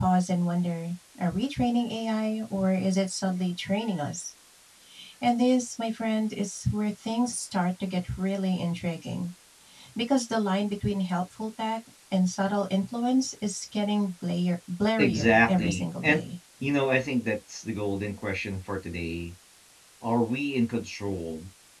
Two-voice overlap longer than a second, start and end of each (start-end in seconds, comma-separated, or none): 15.0-16.2